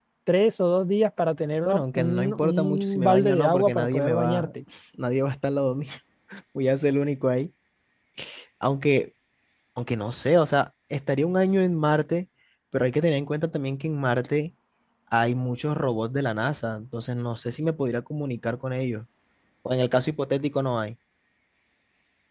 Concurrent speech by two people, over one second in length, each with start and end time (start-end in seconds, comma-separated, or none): 1.6-4.5